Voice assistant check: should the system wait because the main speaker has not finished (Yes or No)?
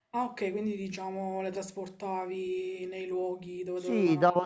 No